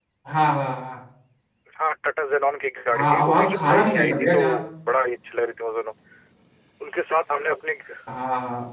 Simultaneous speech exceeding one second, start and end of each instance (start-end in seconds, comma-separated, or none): 2.9-4.4